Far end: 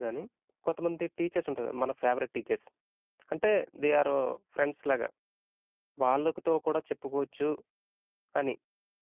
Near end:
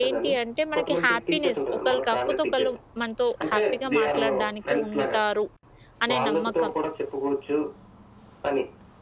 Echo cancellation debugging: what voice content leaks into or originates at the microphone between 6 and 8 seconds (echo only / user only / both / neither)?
both